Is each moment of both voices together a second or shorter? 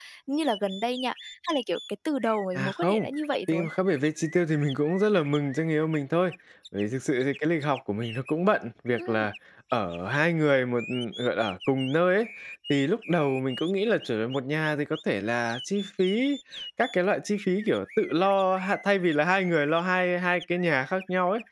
Yes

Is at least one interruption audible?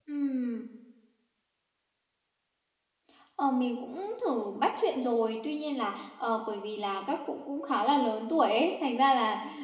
No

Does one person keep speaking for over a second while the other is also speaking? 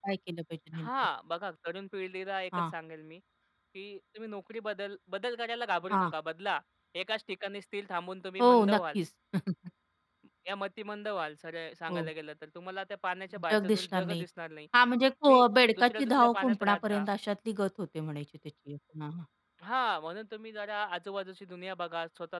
Yes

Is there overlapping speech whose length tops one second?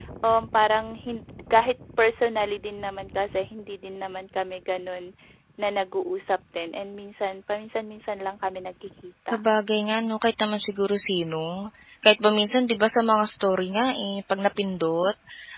No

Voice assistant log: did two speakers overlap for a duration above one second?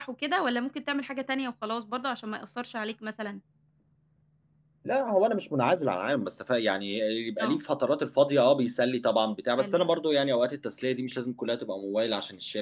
No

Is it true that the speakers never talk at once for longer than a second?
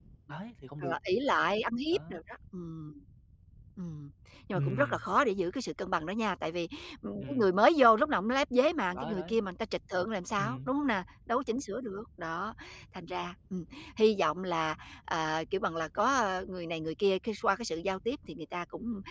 Yes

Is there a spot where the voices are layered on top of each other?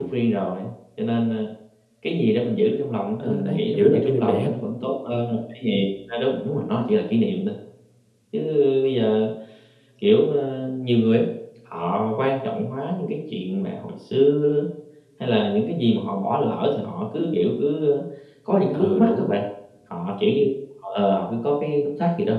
Yes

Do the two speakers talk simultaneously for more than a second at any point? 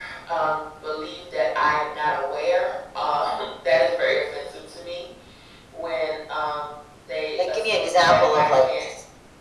Yes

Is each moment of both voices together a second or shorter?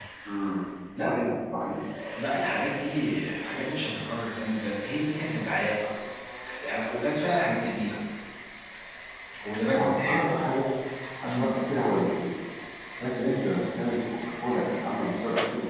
Yes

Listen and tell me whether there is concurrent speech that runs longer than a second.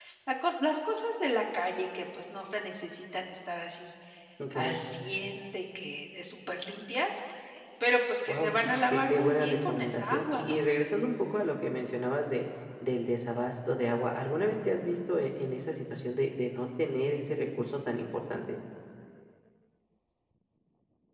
Yes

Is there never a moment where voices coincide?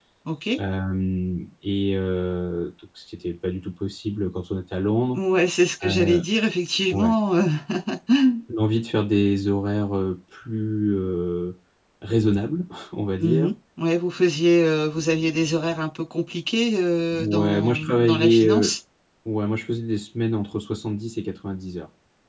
No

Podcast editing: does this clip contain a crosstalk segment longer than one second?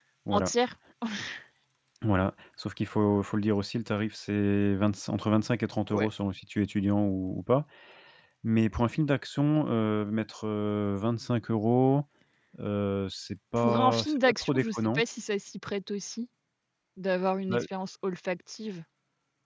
Yes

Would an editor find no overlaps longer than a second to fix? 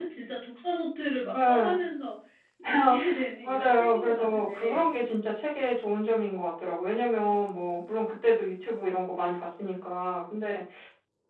No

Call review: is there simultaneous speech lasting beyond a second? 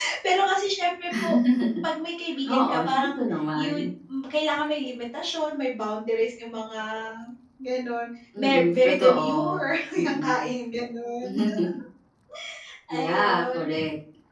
Yes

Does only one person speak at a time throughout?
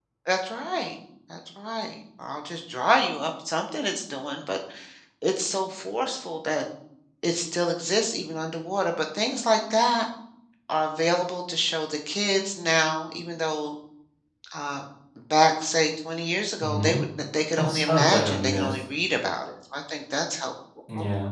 No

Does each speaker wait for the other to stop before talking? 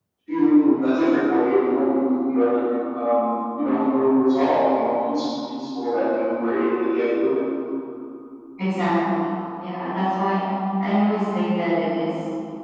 Yes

